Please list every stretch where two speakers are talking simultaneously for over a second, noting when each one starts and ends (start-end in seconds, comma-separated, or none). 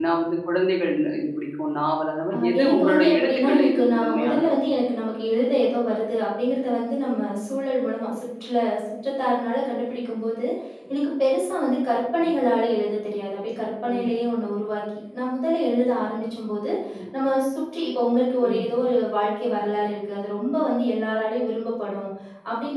2.3-4.5